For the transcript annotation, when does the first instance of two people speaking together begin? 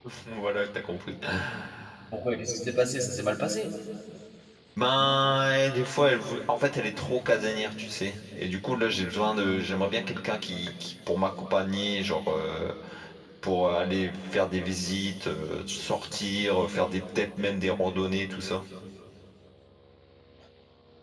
none

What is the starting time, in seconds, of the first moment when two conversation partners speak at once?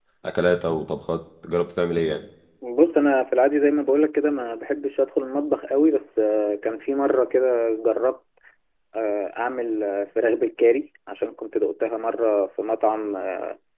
none

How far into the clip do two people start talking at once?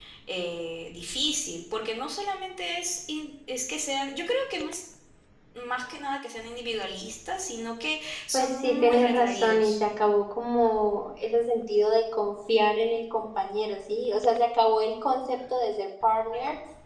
8.3 s

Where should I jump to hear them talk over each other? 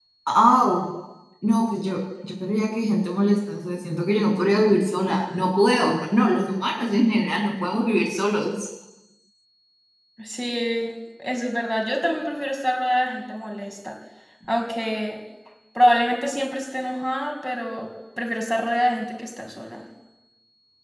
none

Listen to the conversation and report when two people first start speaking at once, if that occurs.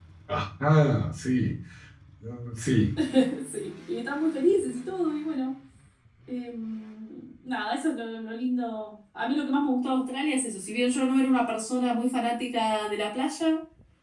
none

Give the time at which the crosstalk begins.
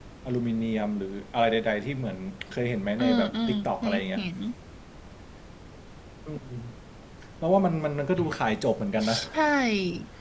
3.0 s

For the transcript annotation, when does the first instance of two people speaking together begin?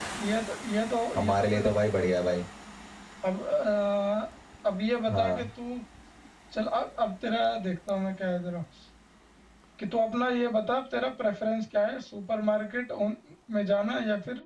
1.2 s

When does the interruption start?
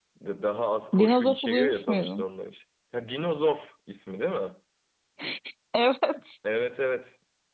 0.9 s

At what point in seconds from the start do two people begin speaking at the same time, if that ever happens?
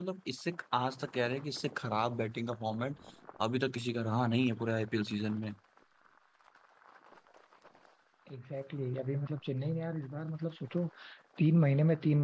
none

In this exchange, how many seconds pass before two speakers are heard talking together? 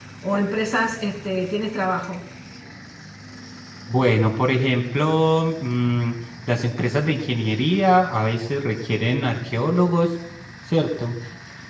none

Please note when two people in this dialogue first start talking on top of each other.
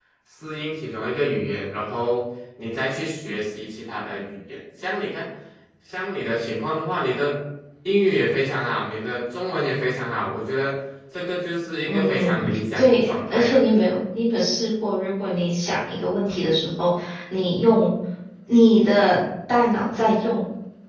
11.8 s

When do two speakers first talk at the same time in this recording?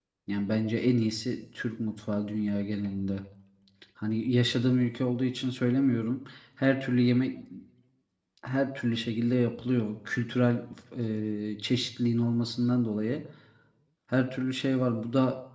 none

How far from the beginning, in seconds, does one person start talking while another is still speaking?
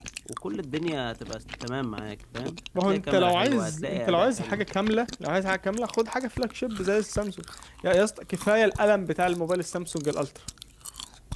2.8 s

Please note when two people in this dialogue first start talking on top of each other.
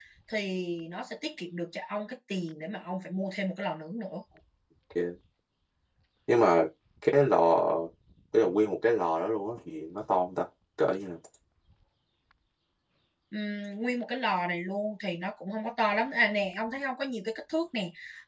none

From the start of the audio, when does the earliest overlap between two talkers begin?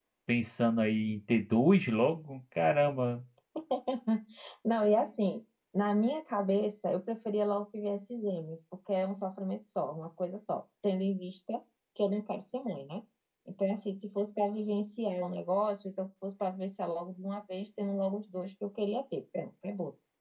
none

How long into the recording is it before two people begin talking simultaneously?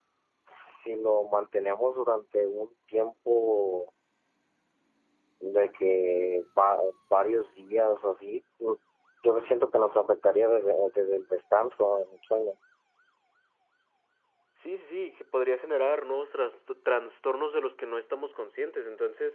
none

